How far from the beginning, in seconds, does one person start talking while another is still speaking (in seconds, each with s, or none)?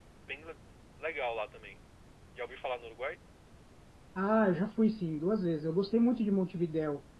none